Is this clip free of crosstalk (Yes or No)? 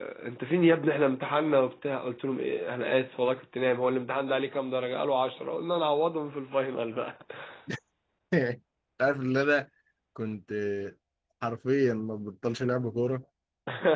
Yes